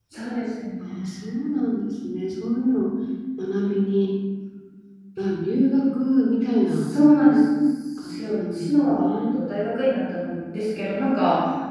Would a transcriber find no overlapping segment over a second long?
No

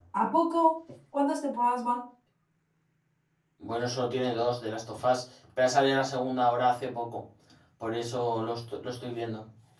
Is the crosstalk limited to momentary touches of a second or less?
Yes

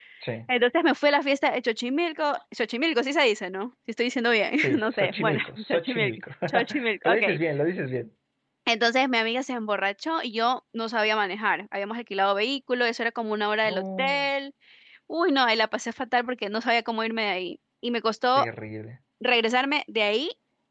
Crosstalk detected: Yes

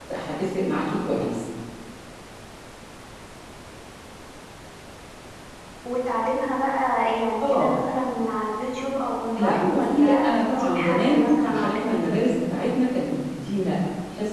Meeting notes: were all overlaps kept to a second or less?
No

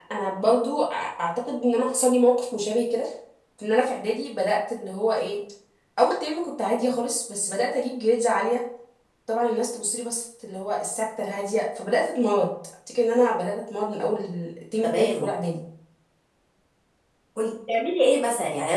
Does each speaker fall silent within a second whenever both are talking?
Yes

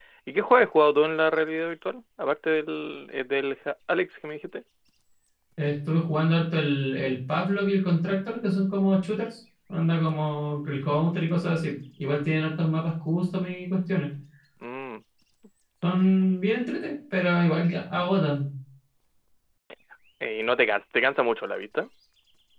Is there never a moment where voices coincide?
Yes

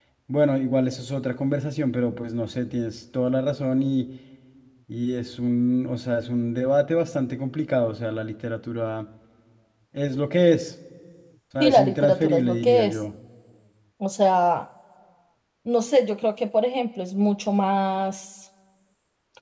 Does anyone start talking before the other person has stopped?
Yes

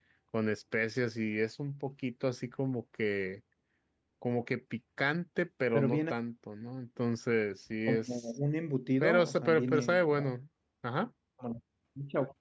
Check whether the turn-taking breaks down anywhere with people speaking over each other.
Yes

